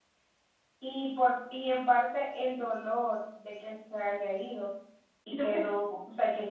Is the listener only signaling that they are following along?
Yes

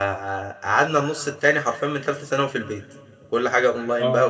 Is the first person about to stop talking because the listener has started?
No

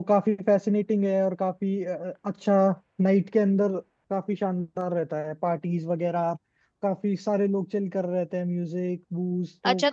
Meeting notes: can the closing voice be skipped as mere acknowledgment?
No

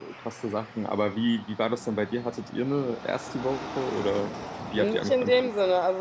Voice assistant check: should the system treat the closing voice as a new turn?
Yes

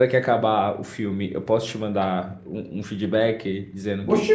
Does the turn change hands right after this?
Yes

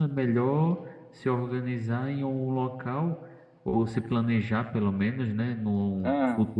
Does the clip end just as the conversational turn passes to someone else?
No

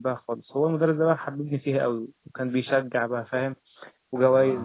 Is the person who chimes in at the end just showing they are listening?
Yes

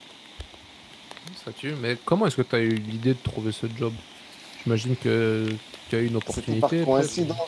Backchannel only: No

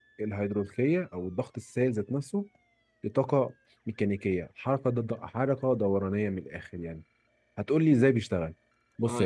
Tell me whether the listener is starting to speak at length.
Yes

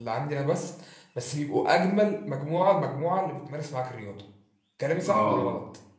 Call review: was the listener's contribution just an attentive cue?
No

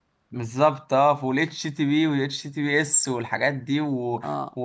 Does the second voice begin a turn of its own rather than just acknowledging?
No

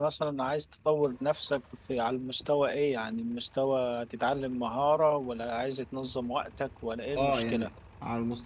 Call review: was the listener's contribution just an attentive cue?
No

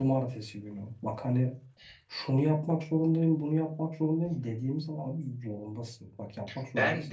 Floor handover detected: No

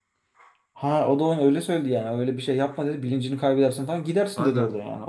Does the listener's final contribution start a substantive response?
Yes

